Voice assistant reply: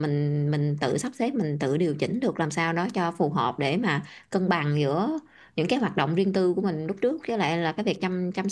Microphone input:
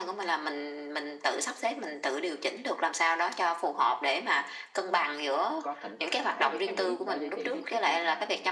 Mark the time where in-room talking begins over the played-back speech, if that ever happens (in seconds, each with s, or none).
5.6 s